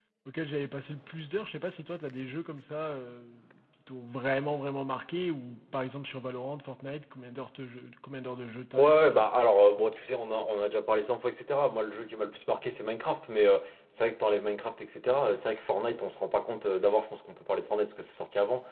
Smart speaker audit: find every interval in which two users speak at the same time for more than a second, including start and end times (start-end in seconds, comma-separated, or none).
none